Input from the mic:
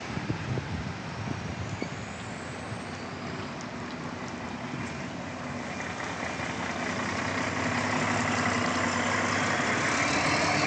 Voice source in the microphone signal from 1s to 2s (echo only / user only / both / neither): neither